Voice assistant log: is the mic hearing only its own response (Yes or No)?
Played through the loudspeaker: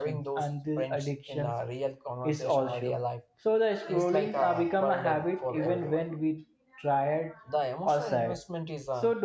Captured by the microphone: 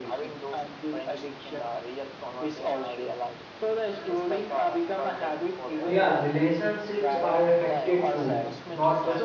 No